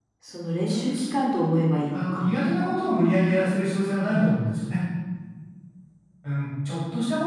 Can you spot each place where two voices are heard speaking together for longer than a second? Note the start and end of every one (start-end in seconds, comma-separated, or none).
none